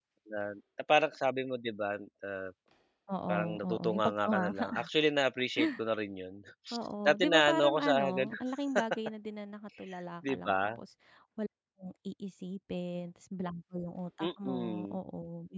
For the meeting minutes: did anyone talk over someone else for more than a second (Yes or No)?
Yes